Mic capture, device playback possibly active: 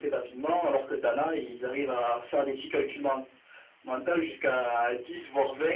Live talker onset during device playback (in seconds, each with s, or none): none